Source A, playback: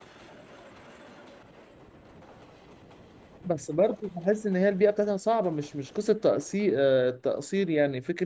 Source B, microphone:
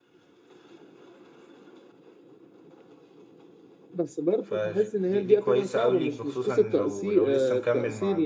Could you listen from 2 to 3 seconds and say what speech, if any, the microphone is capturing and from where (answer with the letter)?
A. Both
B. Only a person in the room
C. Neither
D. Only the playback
C